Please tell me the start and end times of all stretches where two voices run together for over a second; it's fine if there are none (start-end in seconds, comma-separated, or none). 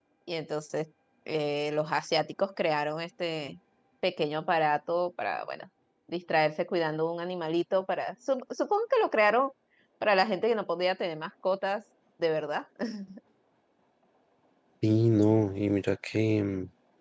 none